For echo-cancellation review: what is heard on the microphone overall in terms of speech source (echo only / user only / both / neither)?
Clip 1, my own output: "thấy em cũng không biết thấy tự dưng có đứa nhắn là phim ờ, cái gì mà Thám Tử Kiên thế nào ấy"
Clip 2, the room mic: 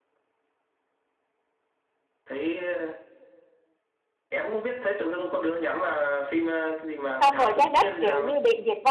both